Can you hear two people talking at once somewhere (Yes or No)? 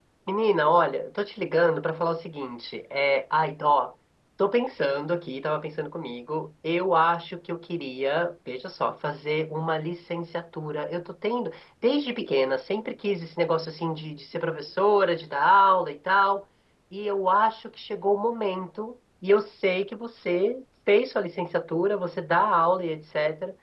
No